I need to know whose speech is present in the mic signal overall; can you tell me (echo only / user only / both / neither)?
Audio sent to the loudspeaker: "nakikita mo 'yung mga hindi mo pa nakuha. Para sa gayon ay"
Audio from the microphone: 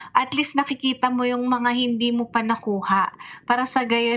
echo only